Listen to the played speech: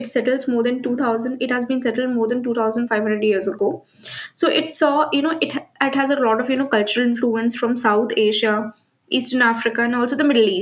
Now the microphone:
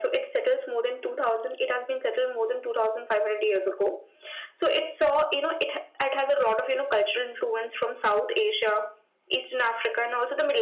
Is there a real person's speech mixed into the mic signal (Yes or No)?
No